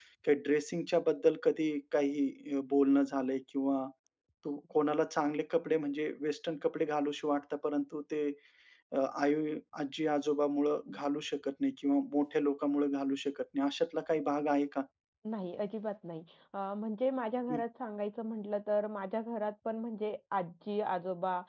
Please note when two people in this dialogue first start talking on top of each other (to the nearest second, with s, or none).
none